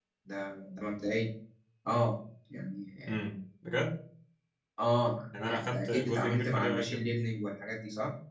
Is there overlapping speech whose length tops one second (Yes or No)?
Yes